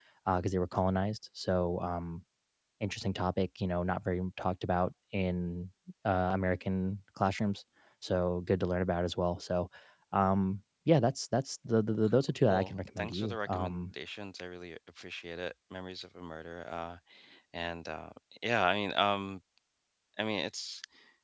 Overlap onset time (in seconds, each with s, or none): 12.5 s